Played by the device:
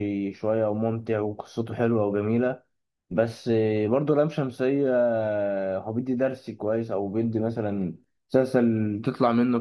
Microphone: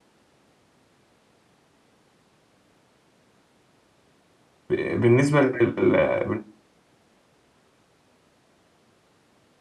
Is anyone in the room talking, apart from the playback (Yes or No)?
Yes